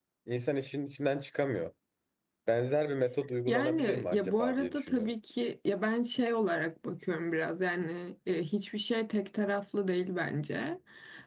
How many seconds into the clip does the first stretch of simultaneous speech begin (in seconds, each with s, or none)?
3.5 s